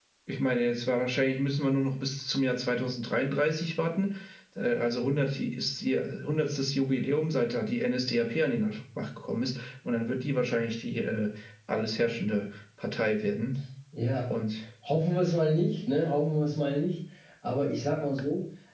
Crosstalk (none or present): none